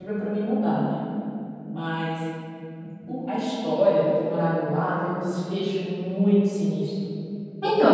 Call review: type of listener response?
taking over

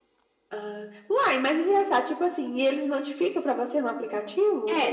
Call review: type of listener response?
taking over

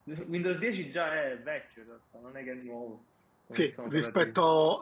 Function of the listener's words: taking over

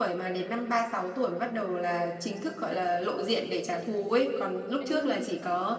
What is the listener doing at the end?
listening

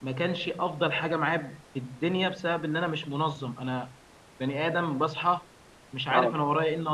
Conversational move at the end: listening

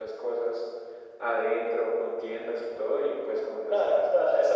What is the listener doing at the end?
taking over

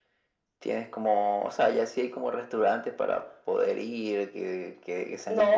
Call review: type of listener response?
taking over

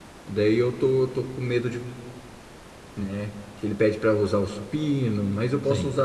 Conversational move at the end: listening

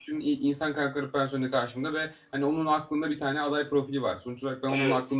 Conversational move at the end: listening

